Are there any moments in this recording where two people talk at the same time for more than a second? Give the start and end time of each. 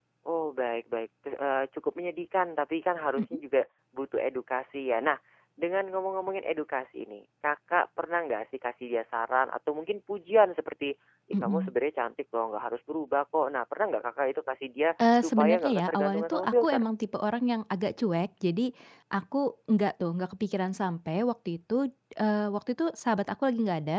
15.2-16.8

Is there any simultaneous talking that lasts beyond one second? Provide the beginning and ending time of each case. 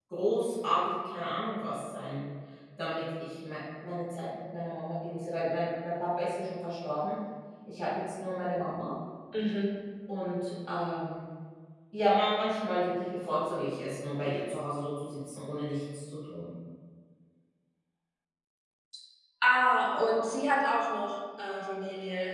none

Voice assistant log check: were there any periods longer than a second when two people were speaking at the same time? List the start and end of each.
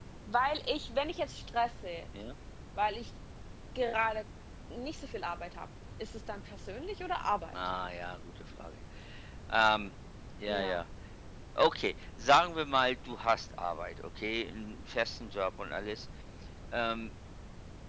none

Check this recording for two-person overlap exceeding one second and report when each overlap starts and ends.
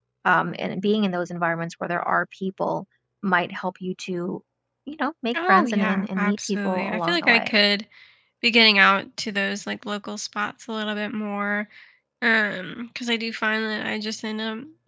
5.3-7.5

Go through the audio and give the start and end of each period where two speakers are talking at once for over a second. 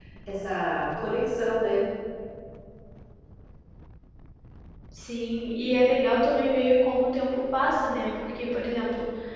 none

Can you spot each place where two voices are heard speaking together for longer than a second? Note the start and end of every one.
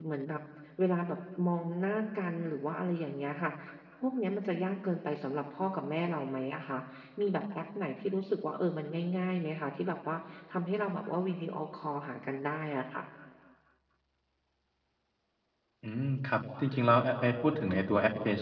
none

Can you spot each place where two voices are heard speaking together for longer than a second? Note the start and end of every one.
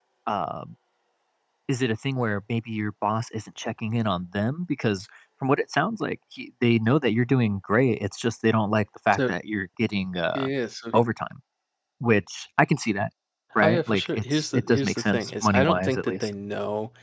13.6-16.3

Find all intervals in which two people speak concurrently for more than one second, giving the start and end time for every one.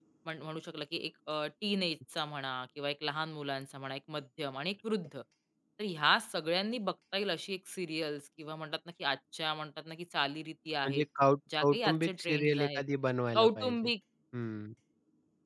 11.6-12.8

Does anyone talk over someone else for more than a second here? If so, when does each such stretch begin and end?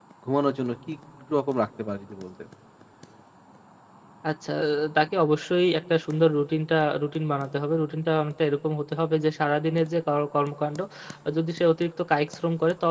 none

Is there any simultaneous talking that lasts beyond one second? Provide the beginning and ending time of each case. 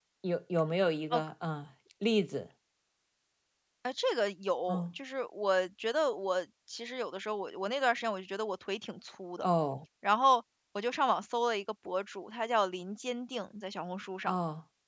none

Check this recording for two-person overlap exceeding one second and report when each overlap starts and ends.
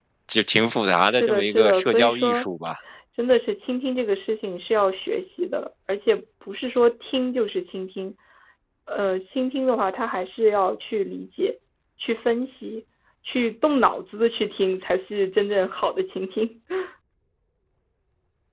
1.1-2.5

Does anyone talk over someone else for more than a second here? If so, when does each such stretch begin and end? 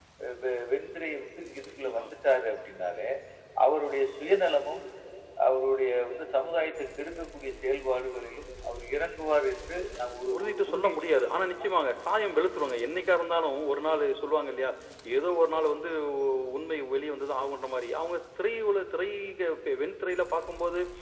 10.3-11.5

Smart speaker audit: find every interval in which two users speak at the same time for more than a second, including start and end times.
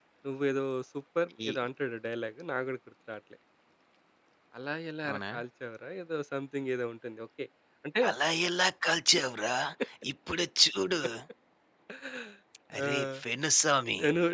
none

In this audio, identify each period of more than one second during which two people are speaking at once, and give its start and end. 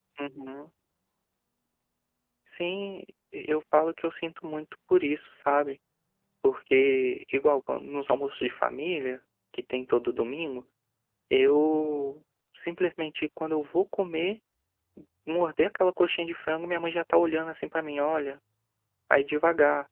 none

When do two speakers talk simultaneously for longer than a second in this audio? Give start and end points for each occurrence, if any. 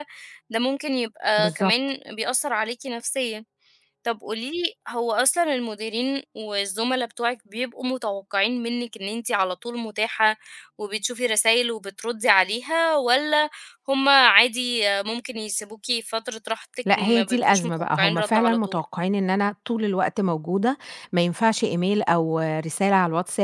17.0-18.8

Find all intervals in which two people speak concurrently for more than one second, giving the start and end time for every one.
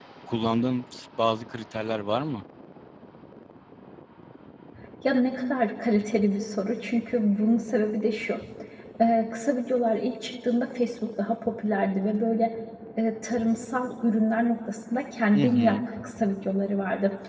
none

